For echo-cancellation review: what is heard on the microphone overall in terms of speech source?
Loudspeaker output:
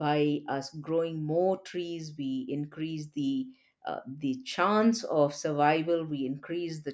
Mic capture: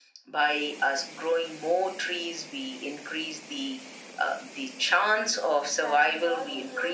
both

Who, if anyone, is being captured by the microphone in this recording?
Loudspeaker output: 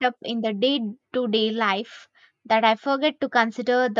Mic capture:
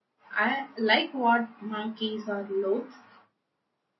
user only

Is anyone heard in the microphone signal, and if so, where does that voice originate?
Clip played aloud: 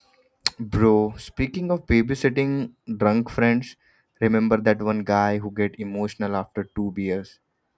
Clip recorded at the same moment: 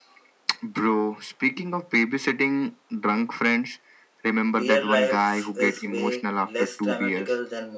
both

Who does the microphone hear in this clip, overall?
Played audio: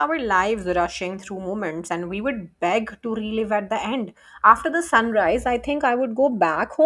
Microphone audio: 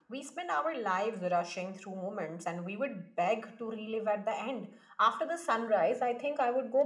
echo only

